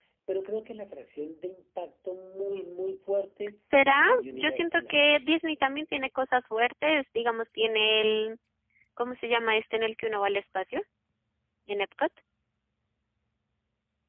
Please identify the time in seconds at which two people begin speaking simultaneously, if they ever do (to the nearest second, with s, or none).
4 s